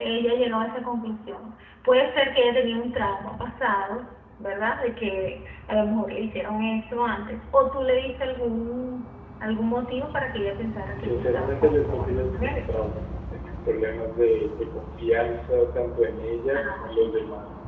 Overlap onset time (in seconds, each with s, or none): 10.9 s